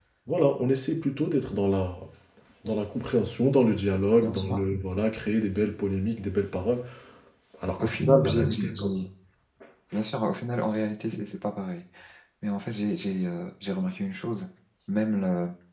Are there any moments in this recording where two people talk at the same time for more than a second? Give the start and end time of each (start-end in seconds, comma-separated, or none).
7.8-9.0